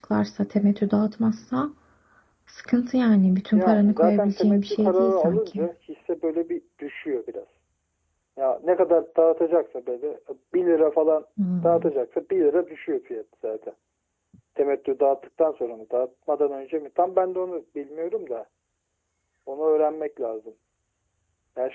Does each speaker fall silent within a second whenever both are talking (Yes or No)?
No